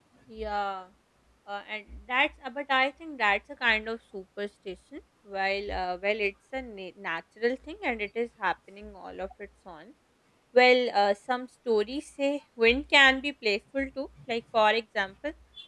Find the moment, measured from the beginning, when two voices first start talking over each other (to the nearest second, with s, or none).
none